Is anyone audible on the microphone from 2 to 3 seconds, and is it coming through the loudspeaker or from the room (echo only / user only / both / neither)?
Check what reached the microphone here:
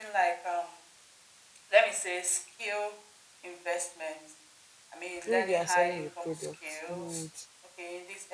echo only